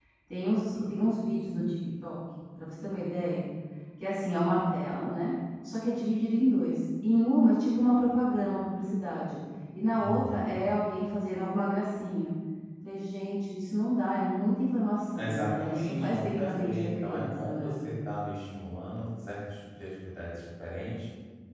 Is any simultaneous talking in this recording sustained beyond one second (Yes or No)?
Yes